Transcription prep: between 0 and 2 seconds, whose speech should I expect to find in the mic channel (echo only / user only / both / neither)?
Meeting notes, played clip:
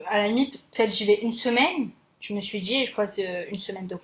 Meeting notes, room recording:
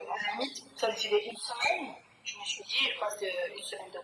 echo only